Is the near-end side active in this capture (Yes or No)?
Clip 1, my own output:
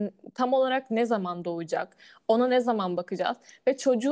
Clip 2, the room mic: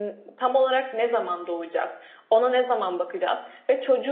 No